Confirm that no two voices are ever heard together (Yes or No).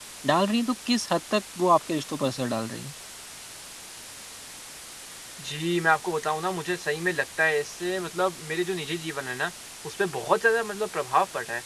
Yes